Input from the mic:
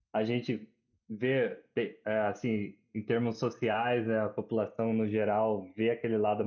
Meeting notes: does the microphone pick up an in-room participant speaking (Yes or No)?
Yes